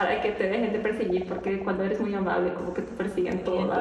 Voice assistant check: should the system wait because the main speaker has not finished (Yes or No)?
No